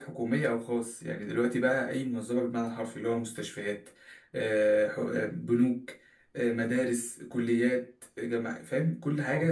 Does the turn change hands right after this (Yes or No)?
No